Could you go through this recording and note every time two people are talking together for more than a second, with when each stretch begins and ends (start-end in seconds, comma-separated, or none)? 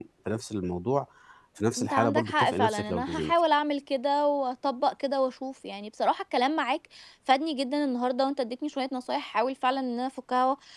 1.8-3.3